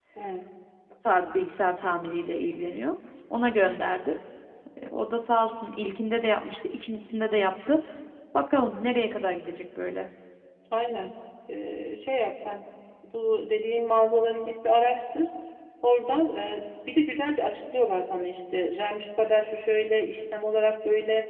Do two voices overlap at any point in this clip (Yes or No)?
No